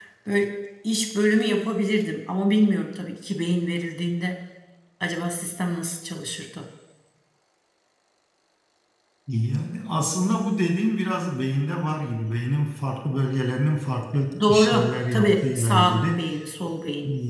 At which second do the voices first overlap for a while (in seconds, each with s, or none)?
14.3 s